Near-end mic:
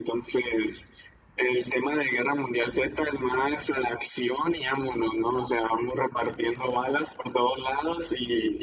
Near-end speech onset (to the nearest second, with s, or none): none